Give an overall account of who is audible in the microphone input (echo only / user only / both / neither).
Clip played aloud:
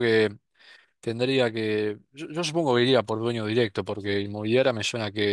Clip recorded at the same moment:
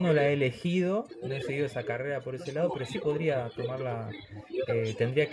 both